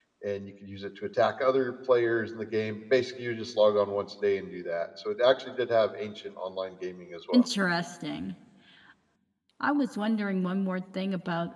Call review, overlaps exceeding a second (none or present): none